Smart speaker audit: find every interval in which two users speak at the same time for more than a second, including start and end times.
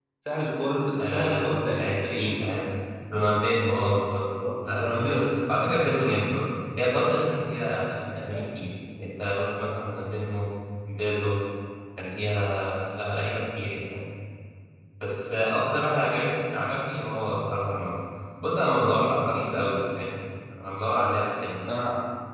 1.0-2.5

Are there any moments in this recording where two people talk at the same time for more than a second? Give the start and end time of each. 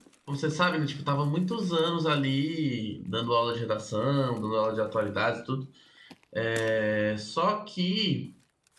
none

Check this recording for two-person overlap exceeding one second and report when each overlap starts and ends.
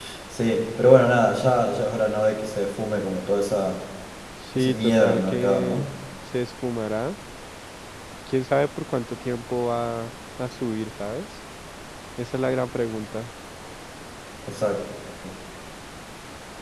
4.5-5.8

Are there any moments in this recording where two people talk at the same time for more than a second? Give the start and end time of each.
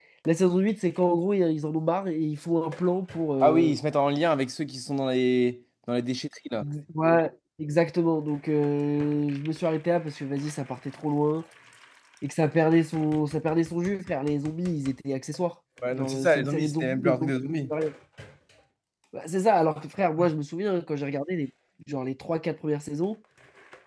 15.9-17.7

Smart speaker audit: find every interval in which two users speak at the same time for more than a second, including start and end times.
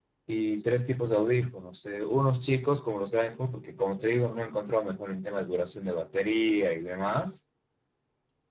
none

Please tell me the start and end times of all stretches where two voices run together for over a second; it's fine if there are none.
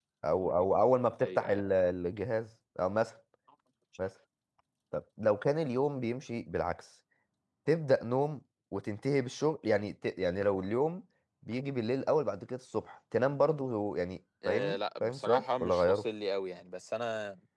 14.5-16.0

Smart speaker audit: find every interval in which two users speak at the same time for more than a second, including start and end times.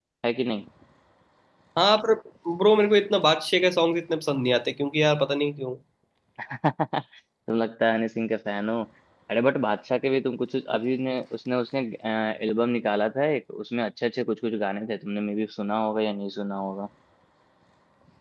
none

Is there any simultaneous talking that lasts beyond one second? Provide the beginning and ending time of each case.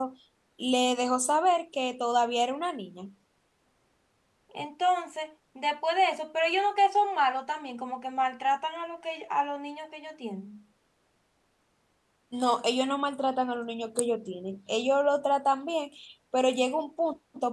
none

